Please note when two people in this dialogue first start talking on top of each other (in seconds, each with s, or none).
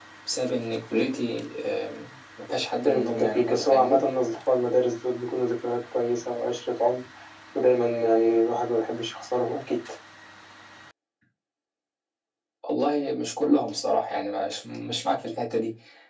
2.8 s